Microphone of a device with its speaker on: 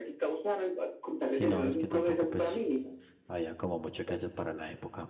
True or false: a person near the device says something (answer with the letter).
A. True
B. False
A